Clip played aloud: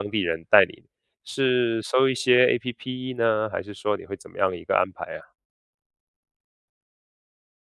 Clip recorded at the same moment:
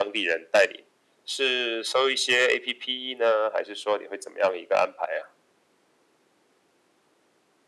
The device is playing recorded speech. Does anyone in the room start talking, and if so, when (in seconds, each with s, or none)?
none